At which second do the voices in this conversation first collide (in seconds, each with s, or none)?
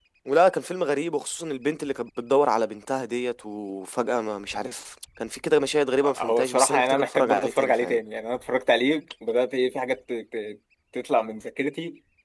6.0 s